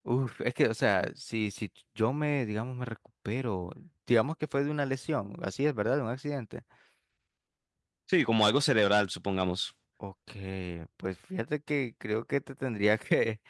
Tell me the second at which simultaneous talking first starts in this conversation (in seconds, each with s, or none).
none